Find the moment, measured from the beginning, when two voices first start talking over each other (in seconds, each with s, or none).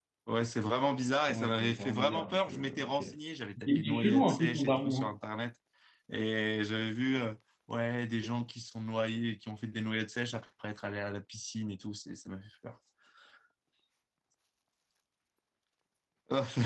1.3 s